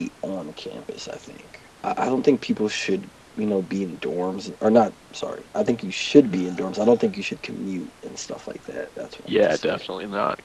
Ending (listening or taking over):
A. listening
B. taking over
B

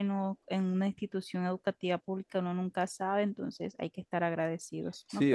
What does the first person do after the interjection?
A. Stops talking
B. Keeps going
A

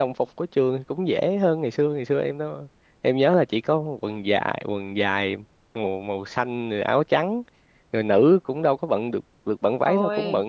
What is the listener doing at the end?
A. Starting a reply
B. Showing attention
B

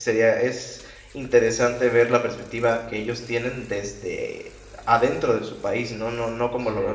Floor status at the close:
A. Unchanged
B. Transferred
A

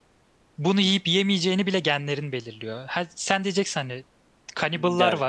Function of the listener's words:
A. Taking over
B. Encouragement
B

